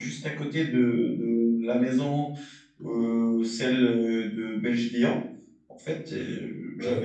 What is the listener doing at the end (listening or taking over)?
listening